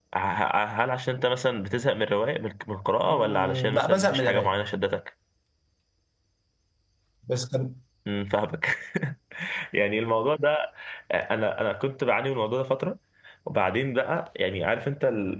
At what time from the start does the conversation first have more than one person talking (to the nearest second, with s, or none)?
3 s